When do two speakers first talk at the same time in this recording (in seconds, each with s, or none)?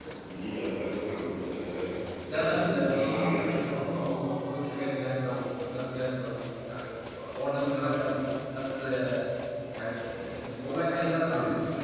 2.3 s